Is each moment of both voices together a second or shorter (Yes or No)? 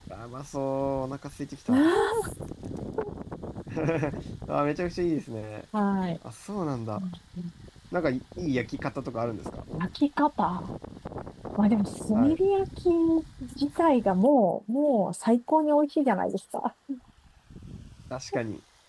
Yes